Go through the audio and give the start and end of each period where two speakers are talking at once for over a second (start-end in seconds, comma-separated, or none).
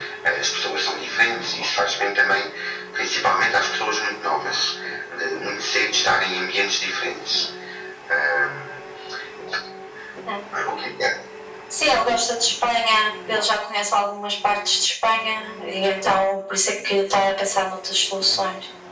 none